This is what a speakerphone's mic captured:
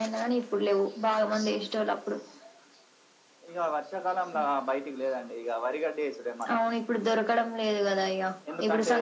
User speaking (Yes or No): No